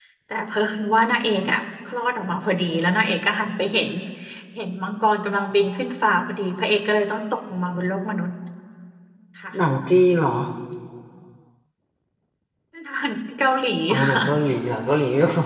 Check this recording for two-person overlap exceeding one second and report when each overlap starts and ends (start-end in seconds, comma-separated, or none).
none